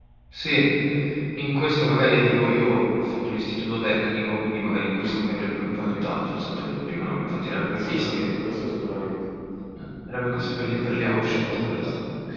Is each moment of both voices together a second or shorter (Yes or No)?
No